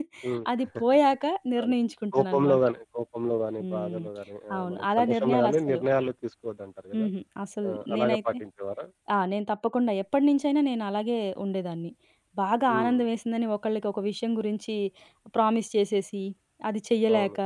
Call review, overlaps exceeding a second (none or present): present